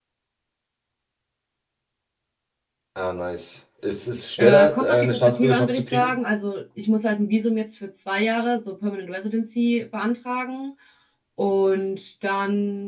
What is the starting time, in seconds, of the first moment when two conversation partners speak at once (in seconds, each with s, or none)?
4.4 s